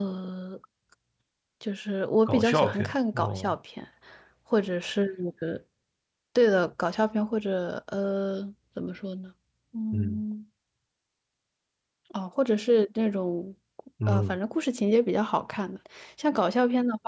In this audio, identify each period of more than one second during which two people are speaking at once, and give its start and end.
2.3-3.5

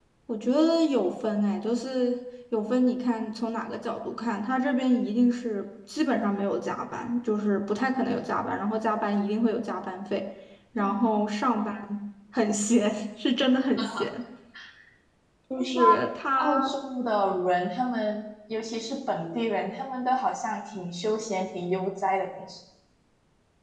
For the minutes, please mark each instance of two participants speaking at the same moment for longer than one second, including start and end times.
none

